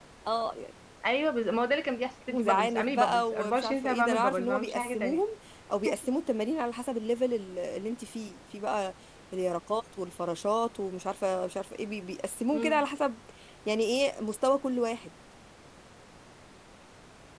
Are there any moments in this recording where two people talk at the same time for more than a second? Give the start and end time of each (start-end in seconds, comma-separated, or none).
2.3-5.2